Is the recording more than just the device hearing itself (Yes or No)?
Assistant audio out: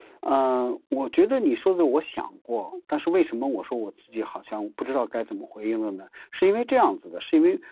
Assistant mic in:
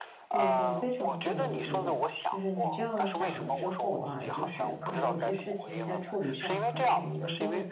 Yes